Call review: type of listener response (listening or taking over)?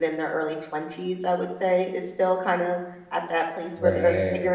listening